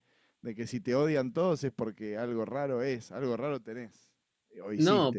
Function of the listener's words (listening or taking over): taking over